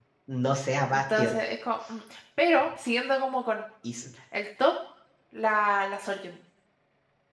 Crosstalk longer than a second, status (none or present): none